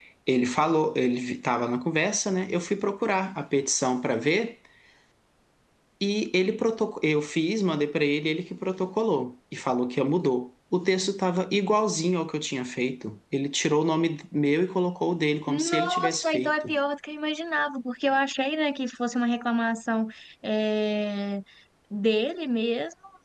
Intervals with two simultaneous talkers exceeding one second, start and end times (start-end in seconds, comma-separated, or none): 15.5-16.7